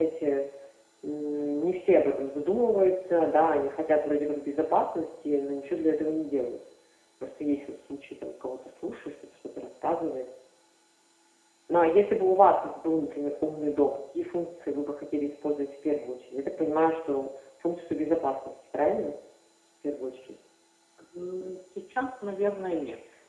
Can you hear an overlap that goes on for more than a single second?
No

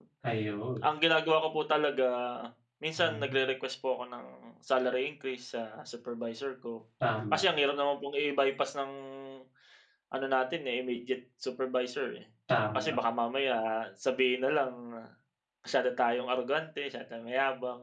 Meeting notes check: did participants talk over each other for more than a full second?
No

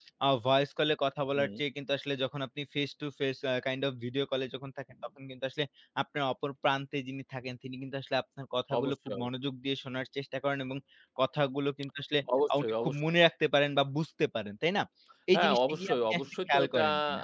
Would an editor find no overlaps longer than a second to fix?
No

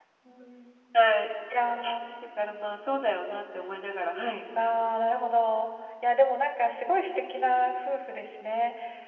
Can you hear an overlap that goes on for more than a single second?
No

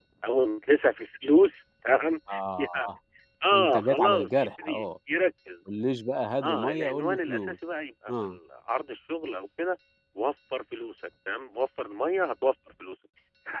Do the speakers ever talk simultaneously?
Yes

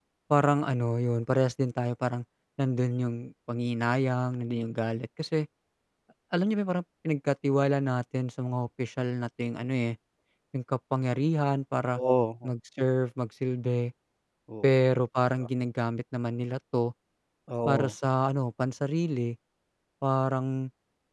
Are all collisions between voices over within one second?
Yes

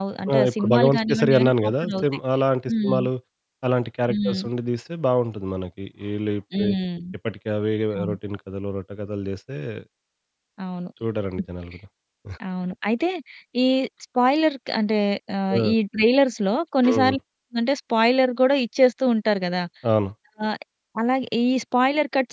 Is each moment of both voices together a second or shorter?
No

